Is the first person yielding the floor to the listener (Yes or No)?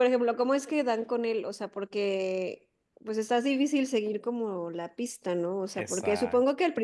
No